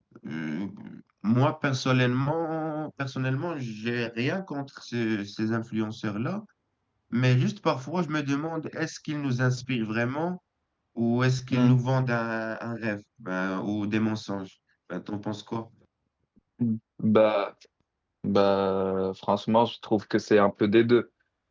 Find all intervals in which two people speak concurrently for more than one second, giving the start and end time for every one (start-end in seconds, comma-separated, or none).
none